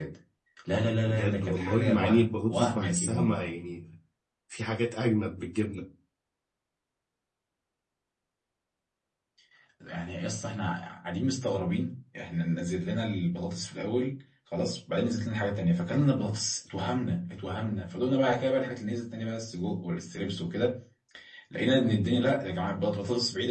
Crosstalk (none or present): present